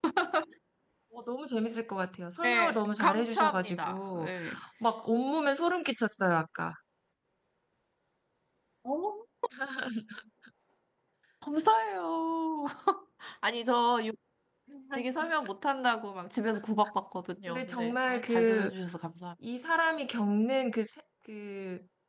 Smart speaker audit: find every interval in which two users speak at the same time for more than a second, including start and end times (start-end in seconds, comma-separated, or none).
2.4-4.3, 17.5-18.7